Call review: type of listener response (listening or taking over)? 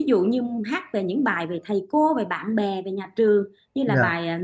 listening